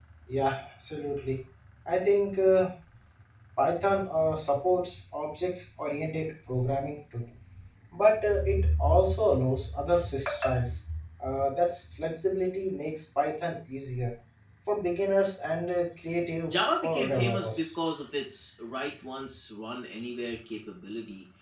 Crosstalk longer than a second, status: present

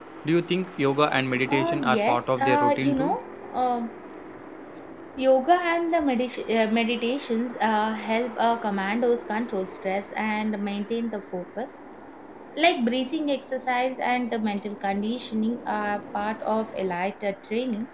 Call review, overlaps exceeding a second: present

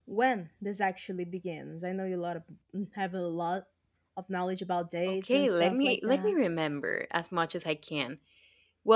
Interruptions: present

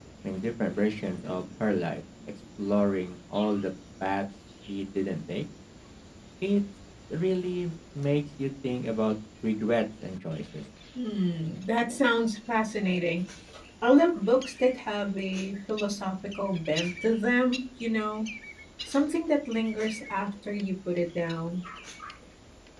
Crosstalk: none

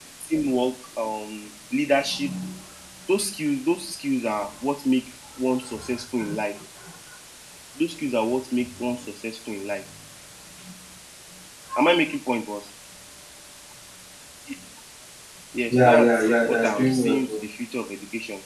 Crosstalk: present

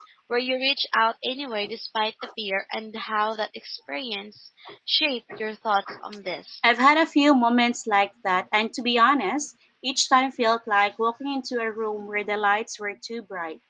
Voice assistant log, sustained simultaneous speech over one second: none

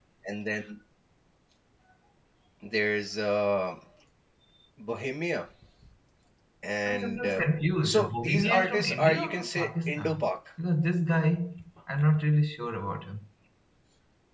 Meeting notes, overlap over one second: present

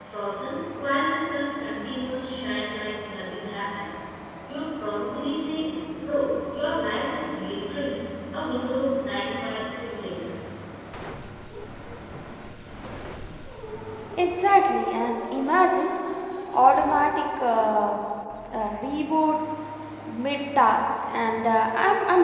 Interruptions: none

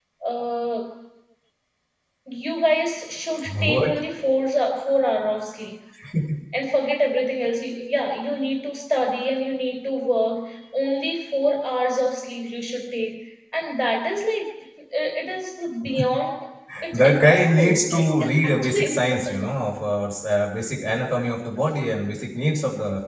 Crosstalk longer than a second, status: present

